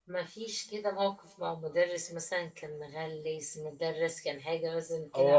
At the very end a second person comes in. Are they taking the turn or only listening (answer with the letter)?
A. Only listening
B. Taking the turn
B